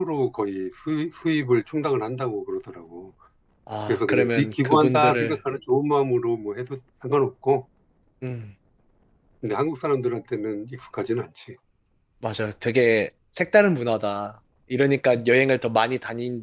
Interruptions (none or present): present